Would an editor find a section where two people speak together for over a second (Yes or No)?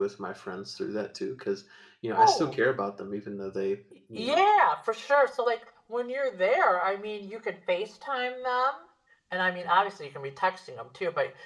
No